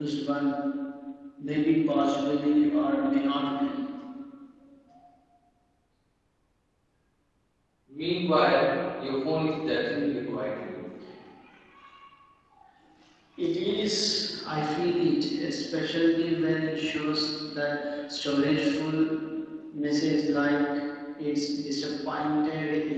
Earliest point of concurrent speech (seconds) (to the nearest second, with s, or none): none